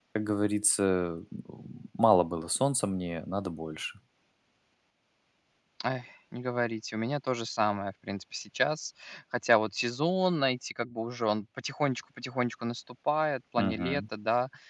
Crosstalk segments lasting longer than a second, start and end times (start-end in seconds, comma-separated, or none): none